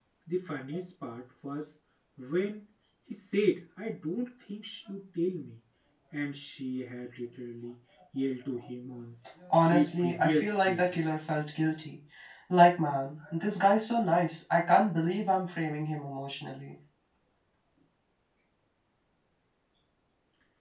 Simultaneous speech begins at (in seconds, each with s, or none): 9.6 s